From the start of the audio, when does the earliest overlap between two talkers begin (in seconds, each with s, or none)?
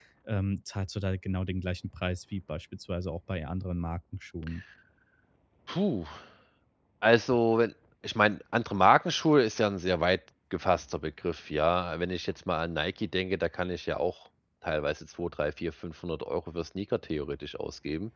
none